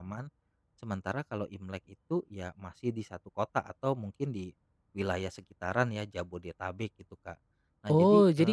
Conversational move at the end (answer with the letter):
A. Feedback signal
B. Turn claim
B